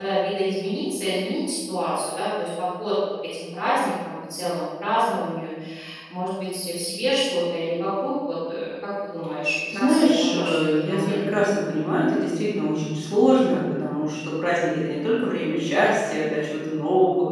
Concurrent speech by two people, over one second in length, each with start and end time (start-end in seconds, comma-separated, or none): 9.8-11.2